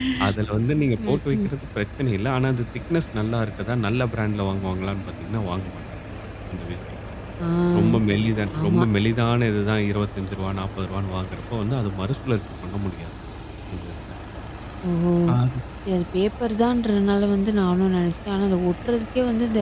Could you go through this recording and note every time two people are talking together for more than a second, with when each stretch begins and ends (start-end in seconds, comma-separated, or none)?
none